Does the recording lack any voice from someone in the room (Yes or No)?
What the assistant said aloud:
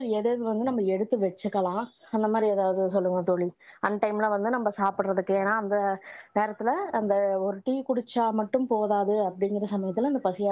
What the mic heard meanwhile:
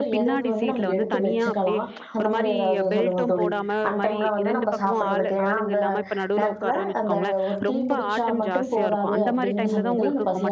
No